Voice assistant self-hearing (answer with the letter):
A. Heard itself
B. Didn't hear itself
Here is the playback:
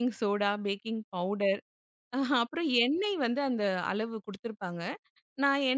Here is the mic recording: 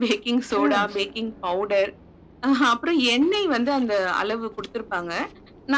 A